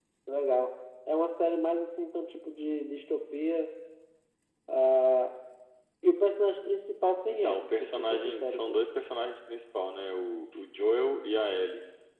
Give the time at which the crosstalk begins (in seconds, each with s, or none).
7.3 s